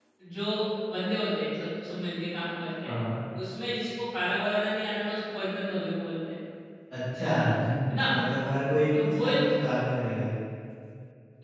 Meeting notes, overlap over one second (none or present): none